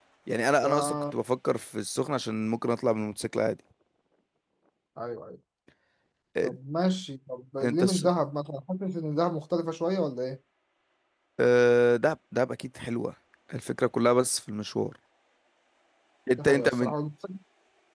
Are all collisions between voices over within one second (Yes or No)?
Yes